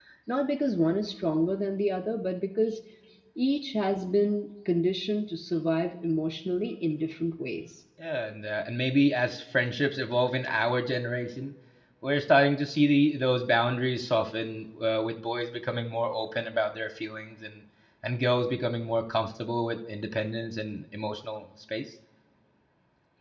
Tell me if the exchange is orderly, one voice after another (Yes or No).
Yes